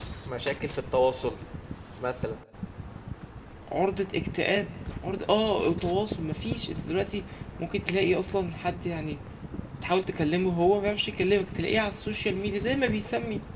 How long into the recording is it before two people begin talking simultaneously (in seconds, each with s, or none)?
none